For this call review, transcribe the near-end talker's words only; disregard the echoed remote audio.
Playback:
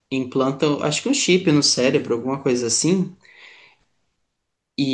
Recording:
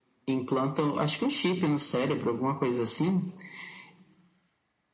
none

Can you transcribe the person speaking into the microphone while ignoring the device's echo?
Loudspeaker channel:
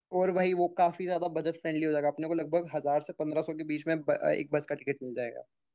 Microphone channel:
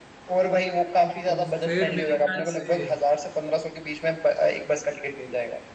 तो फिर मेरे ख्याल से

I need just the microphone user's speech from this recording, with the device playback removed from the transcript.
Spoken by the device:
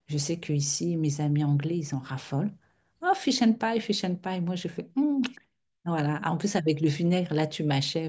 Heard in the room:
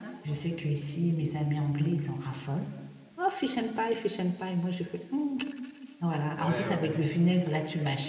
ouais, ouais.

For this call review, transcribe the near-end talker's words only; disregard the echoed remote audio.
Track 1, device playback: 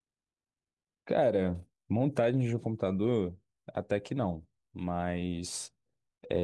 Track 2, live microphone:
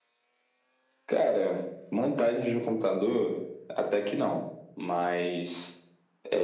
none

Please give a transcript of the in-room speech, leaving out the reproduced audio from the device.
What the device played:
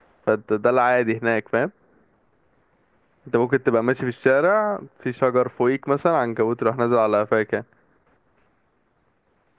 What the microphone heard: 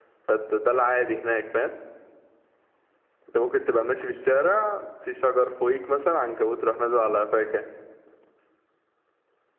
none

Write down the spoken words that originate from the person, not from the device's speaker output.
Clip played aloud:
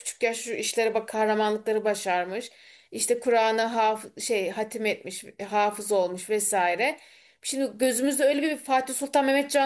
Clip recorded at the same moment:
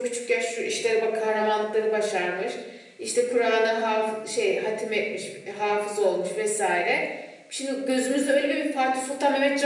none

